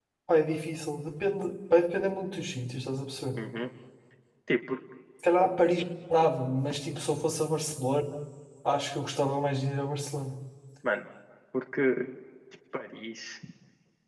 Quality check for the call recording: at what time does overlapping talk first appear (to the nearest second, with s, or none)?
none